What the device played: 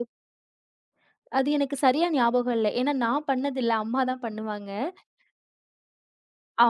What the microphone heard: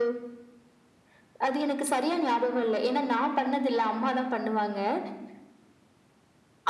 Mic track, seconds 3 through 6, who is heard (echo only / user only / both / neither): echo only